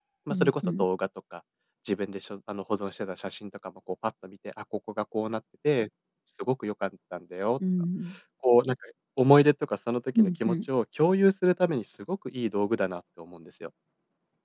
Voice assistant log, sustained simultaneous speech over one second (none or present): none